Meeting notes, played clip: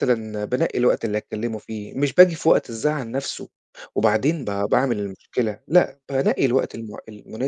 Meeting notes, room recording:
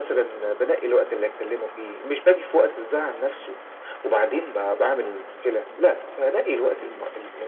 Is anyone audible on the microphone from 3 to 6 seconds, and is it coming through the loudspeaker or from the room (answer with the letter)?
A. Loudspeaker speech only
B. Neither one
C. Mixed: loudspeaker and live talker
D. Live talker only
A